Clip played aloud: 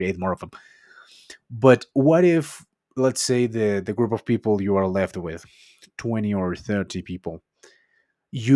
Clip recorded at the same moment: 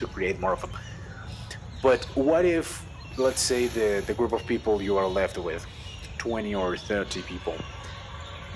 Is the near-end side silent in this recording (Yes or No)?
Yes